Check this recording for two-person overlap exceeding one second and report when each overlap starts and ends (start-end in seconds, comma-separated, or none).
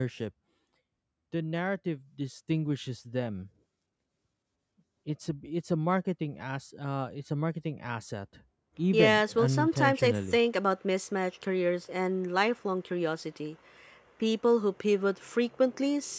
8.9-10.4